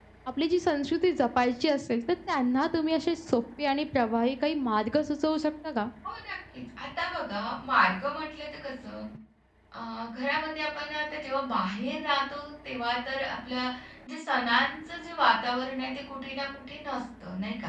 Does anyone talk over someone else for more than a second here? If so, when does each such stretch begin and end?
none

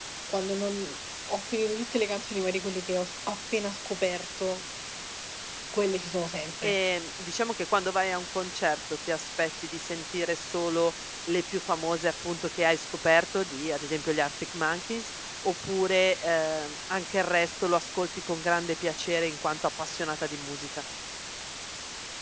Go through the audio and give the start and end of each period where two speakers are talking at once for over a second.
none

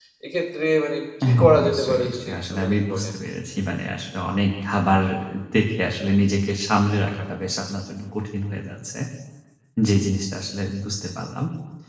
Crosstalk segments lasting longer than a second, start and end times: 1.3-3.1

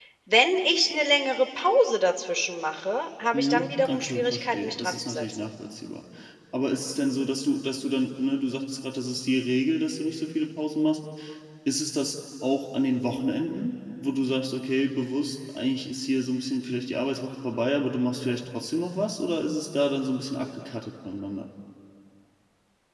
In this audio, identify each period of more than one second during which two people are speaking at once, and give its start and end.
3.3-5.4

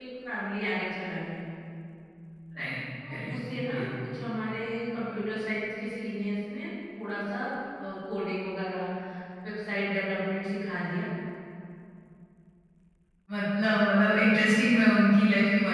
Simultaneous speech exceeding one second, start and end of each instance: none

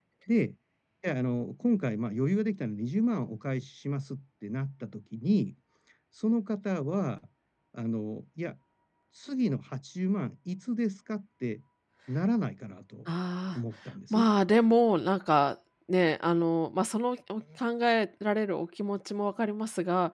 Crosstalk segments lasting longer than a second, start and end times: none

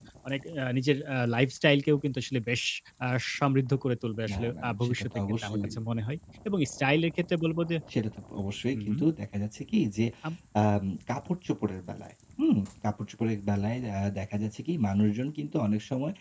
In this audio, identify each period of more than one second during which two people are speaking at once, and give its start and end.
4.3-5.8

